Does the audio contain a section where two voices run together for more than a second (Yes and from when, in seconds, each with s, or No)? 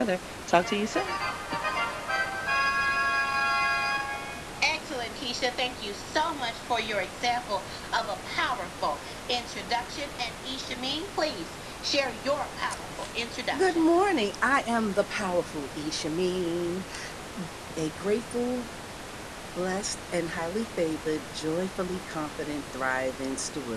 No